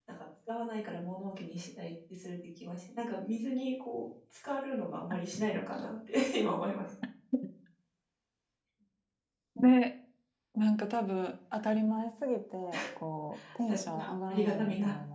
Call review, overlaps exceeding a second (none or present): present